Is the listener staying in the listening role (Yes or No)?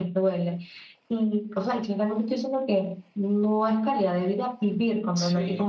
No